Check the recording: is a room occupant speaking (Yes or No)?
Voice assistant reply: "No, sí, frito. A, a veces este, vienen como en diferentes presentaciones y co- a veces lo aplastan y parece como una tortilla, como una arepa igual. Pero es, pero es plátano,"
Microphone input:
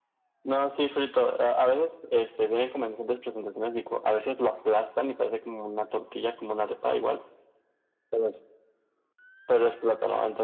No